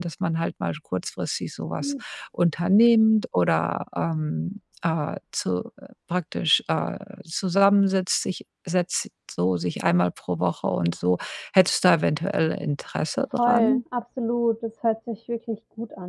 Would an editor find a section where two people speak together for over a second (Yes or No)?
No